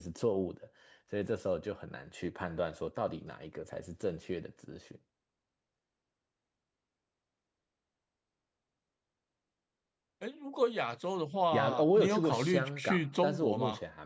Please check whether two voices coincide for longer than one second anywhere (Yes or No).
Yes